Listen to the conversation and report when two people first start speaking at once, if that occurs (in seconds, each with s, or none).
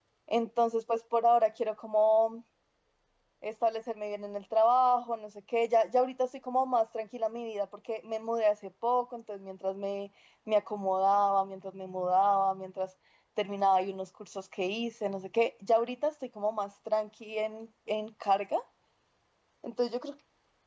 none